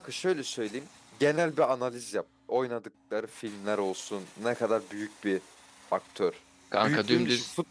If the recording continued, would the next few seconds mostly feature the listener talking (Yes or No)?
Yes